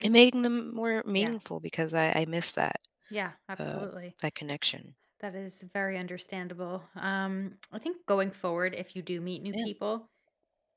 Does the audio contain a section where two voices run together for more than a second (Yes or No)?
No